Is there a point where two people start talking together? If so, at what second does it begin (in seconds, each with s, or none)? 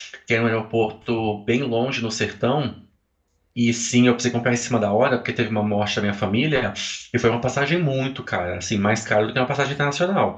none